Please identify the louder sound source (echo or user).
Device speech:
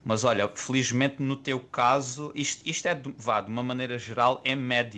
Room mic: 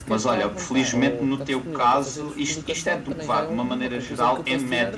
echo